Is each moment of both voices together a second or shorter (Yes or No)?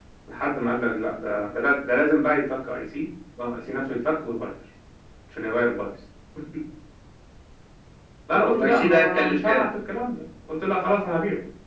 No